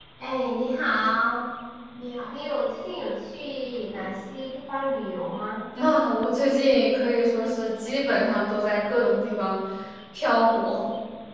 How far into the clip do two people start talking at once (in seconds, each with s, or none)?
none